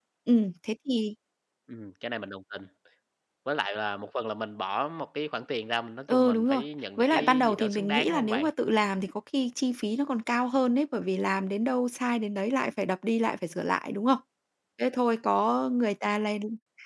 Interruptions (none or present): present